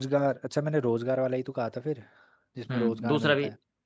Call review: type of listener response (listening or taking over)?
taking over